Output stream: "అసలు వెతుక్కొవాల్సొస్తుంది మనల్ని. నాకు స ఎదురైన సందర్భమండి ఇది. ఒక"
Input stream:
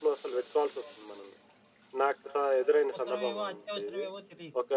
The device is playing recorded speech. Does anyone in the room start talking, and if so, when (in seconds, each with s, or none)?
3.0 s